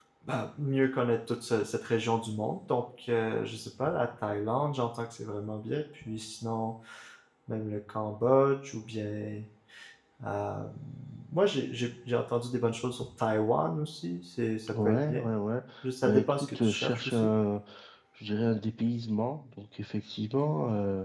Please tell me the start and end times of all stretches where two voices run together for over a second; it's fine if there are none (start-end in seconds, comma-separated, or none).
16.0-17.3